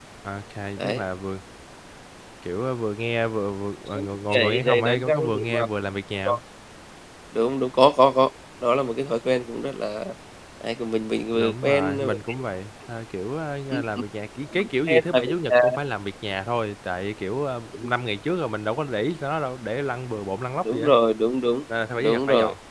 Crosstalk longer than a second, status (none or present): present